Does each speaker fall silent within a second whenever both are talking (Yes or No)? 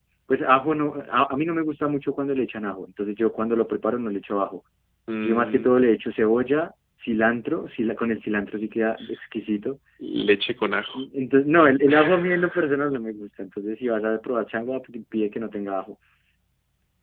Yes